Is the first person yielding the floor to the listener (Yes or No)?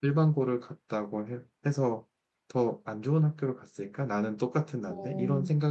Yes